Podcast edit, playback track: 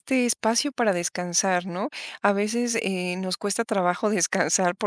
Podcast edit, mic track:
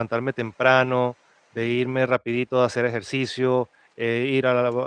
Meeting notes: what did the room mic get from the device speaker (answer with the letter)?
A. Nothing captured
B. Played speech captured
A